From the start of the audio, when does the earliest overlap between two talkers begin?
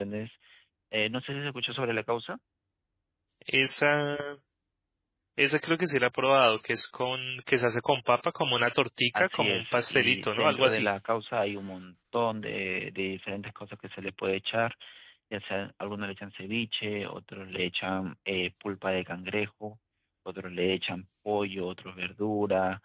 9.1 s

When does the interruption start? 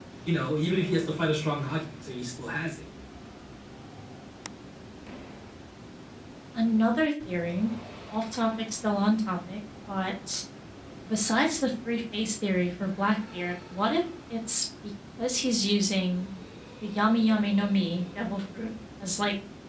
none

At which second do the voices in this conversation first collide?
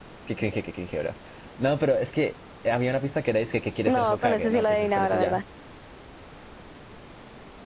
3.9 s

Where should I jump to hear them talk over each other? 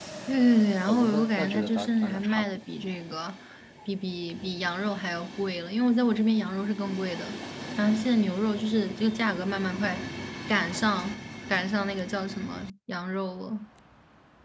0.9 s

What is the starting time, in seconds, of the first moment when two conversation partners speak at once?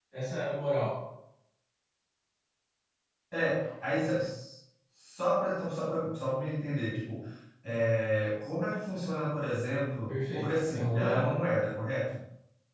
10.1 s

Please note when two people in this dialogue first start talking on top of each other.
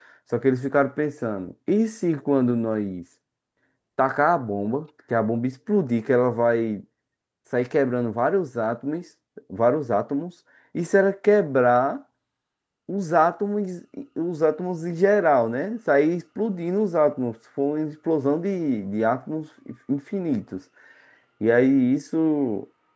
none

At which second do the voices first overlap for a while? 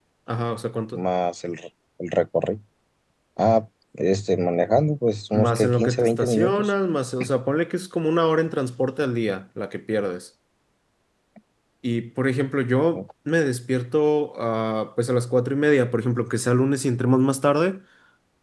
5.3 s

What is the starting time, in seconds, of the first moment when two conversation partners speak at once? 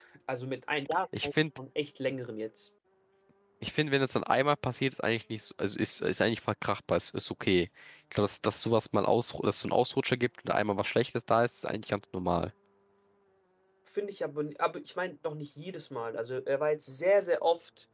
none

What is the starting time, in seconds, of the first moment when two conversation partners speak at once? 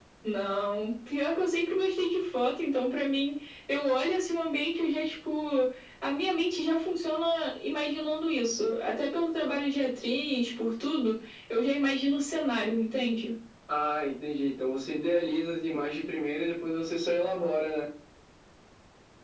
none

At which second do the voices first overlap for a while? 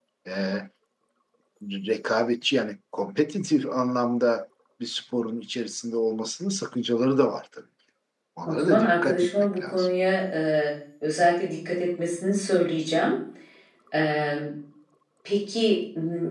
8.5 s

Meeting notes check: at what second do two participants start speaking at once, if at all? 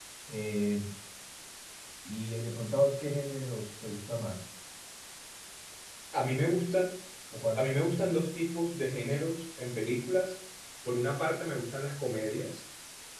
none

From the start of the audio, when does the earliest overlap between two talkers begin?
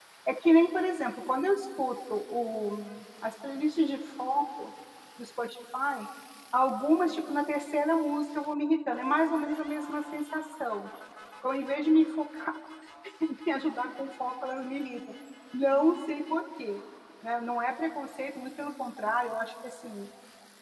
none

